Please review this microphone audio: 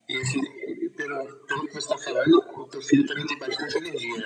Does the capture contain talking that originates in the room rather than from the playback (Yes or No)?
No